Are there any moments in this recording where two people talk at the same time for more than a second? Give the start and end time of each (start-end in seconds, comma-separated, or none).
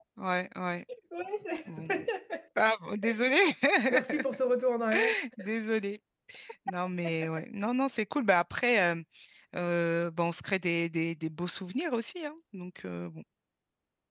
none